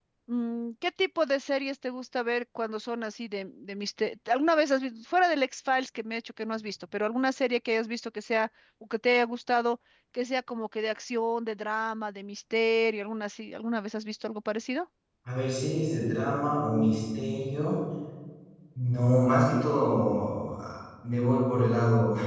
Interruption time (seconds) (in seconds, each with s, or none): none